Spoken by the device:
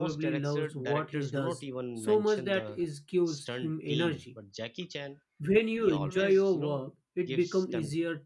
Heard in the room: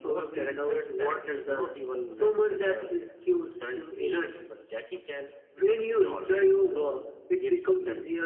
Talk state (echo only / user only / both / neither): echo only